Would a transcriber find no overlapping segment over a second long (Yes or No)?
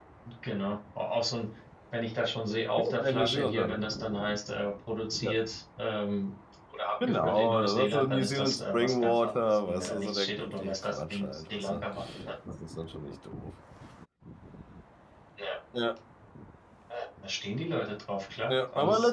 No